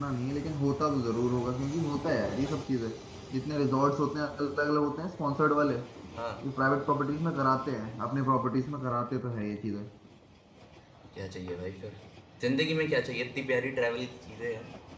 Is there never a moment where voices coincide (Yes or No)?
Yes